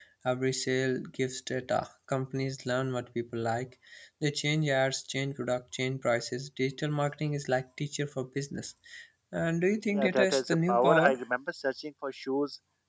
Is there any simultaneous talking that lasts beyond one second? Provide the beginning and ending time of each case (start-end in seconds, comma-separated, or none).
9.9-11.2